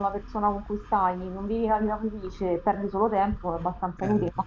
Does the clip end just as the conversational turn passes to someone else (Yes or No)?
No